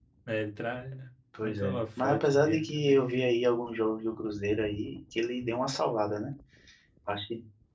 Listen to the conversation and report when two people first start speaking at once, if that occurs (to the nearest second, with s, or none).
1 s